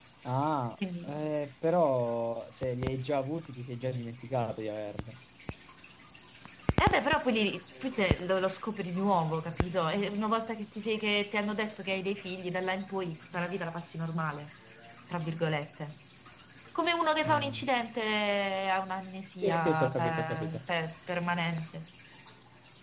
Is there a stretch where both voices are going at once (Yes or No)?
Yes